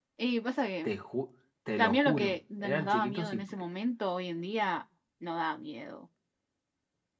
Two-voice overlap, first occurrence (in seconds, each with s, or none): 1.8 s